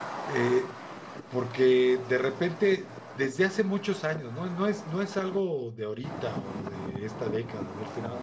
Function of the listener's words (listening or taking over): listening